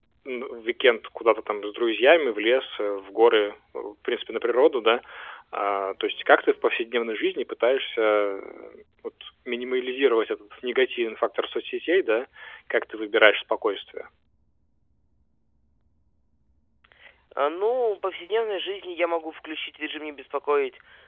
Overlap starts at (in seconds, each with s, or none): none